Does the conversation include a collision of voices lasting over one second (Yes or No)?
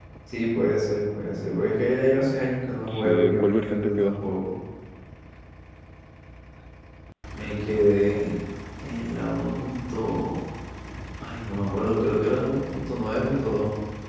Yes